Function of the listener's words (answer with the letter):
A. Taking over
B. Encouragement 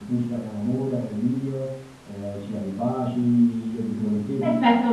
A